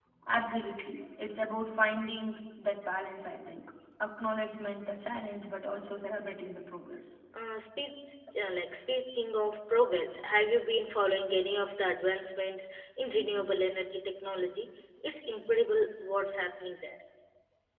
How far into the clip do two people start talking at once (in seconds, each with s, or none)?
none